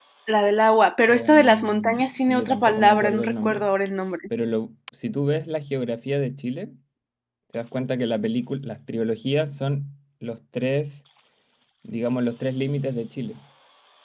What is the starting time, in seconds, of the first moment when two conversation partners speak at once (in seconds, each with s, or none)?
1.1 s